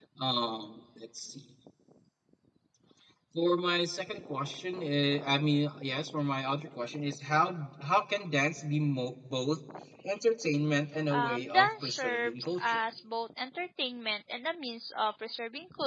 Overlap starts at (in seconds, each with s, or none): 11.1 s